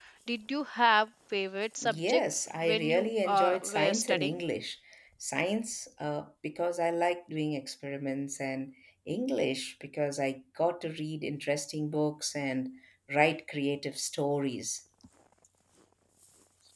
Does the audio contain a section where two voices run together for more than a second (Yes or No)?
Yes